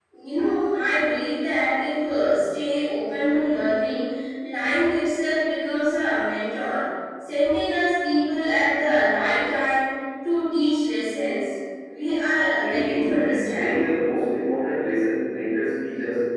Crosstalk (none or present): present